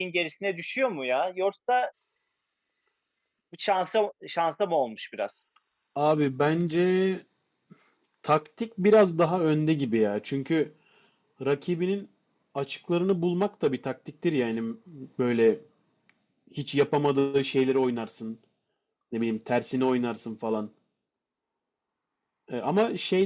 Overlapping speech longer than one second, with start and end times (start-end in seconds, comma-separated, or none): none